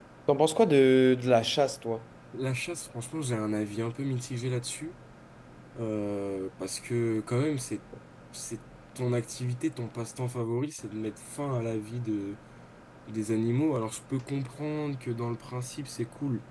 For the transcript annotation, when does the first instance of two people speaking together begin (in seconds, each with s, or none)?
none